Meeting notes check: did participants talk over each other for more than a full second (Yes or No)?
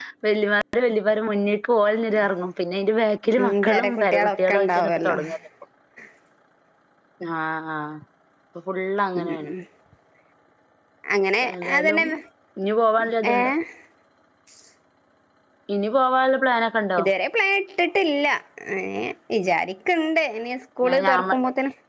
Yes